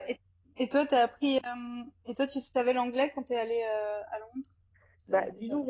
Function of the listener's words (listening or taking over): taking over